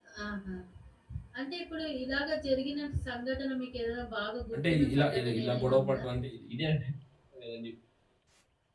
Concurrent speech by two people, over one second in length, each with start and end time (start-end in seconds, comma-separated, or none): 4.6-6.0